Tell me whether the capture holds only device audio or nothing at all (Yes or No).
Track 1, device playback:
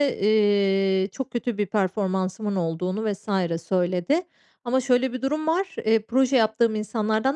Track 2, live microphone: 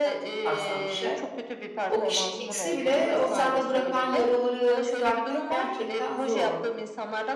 No